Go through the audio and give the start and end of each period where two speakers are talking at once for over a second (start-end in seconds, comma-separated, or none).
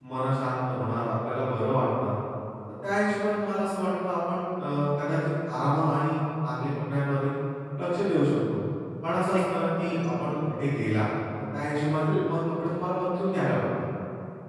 9.2-10.7